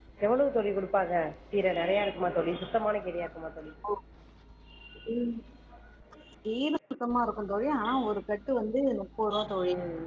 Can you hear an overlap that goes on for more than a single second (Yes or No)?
No